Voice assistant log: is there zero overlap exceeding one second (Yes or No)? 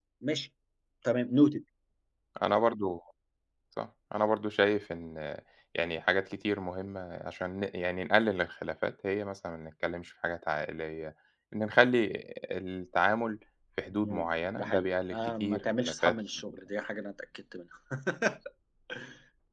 No